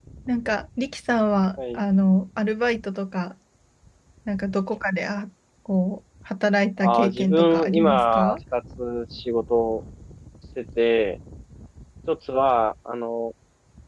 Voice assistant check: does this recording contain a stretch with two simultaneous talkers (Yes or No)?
Yes